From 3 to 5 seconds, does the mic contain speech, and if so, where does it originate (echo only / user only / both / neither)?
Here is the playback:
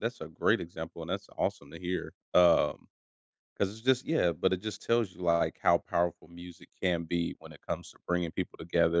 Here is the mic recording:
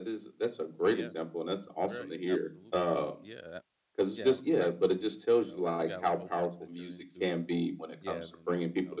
both